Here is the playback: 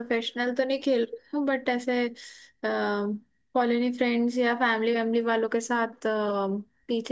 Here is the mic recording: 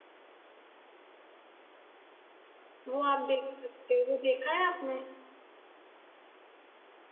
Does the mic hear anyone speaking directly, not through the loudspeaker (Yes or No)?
Yes